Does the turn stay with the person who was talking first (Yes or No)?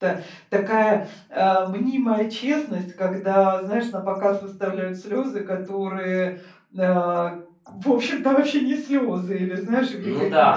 Yes